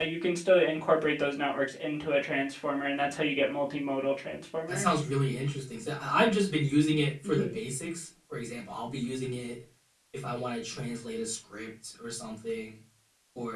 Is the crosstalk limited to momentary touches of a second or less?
Yes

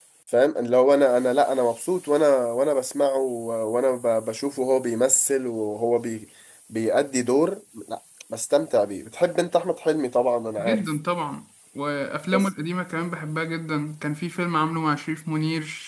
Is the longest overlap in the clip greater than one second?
No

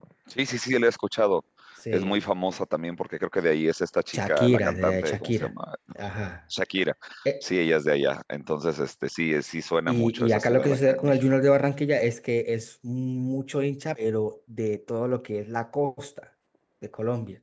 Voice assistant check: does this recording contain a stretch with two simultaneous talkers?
Yes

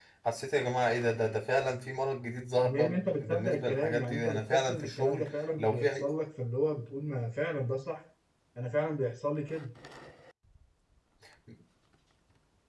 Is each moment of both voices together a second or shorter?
No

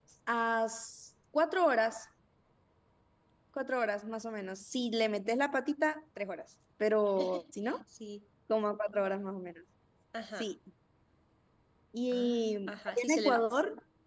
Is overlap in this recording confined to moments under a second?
No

